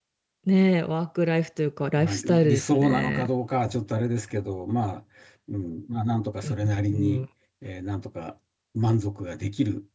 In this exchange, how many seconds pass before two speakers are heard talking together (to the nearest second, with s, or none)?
2 s